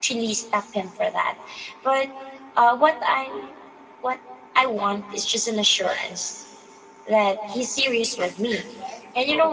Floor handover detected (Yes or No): No